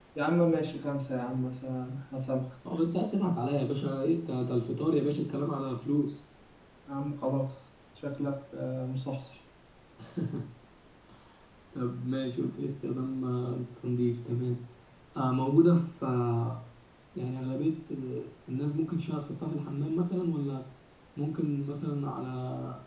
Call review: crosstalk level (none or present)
none